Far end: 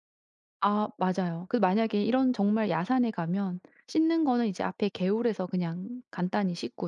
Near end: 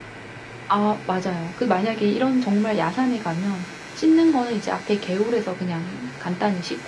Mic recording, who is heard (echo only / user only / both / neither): echo only